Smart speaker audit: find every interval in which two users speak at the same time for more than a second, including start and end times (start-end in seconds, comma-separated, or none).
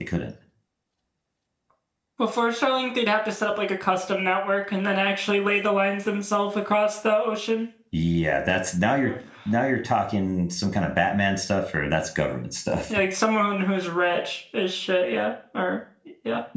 none